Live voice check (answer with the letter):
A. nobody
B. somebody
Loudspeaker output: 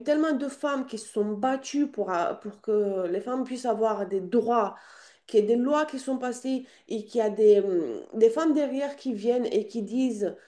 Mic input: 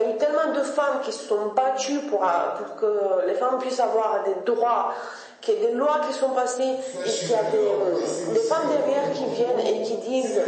B